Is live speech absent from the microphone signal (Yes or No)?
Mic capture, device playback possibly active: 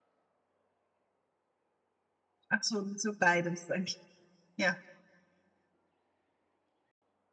No